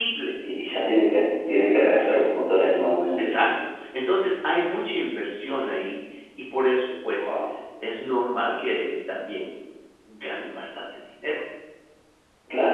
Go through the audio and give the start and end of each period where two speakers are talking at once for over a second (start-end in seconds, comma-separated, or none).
none